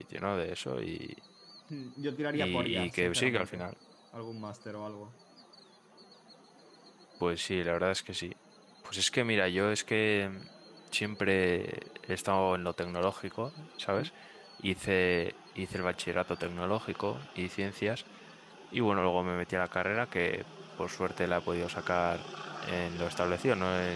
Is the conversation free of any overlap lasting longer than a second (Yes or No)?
No